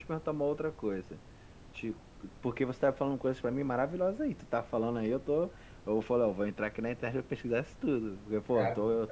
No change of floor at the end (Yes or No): Yes